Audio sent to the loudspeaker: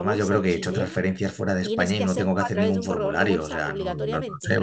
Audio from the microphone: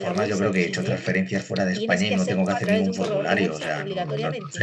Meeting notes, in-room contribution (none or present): none